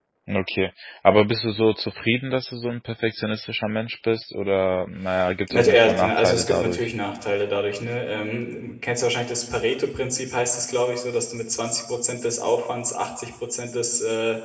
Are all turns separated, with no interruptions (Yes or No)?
No